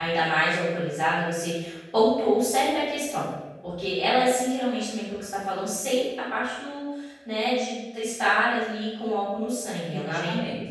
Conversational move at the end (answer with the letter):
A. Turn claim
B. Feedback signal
B